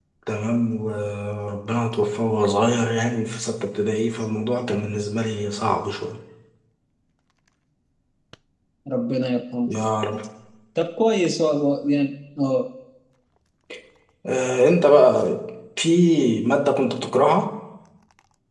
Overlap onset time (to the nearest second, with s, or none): none